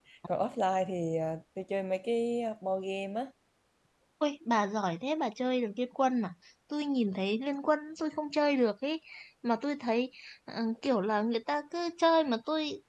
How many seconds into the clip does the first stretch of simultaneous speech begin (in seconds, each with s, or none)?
none